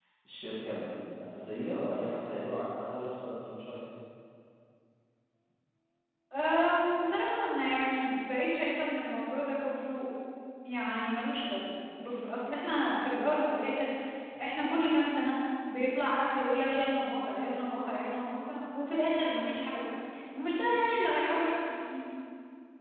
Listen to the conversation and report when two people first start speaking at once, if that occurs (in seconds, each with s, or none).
none